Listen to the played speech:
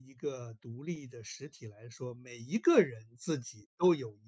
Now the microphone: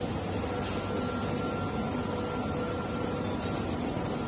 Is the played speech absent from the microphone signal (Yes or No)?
Yes